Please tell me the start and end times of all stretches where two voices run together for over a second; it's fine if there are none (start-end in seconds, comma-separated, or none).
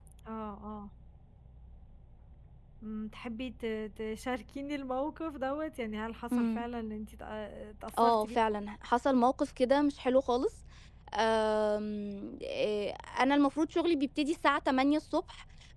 none